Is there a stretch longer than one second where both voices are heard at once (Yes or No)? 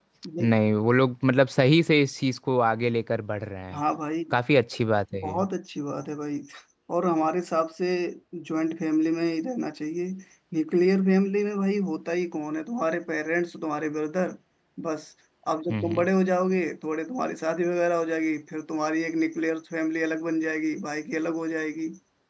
No